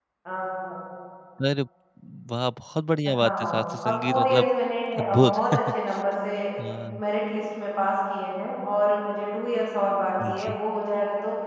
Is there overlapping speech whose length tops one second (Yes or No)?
Yes